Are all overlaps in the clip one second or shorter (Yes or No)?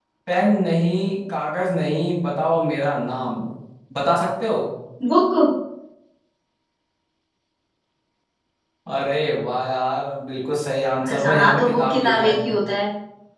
No